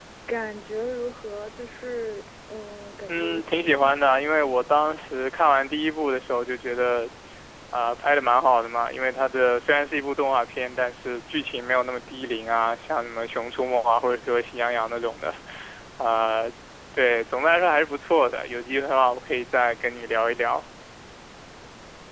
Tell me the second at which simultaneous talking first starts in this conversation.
3.1 s

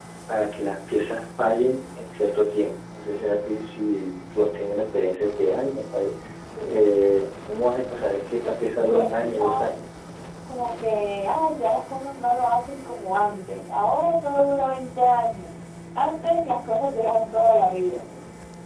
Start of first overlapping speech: 8.4 s

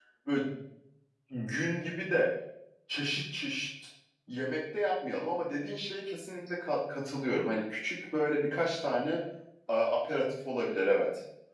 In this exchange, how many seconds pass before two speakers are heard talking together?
none

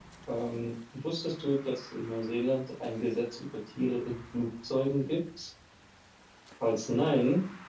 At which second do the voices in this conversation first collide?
none

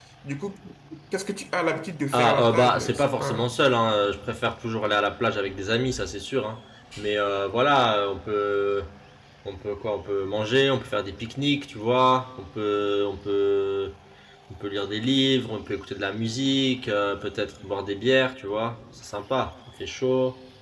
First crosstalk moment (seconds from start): 2.1 s

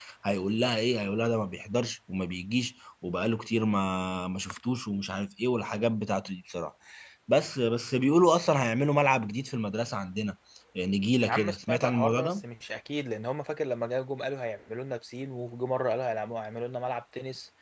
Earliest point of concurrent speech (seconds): 11.2 s

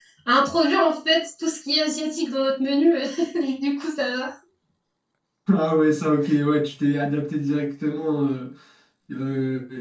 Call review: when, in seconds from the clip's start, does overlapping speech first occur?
none

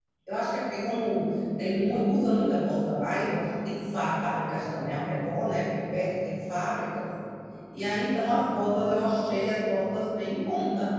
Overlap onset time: none

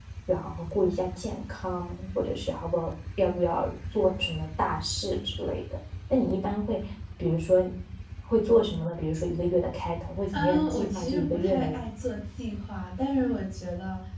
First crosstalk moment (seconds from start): 10.3 s

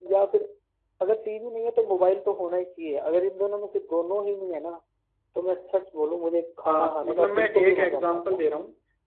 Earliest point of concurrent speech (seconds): 6.6 s

